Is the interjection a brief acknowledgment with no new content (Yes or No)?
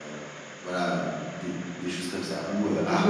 Yes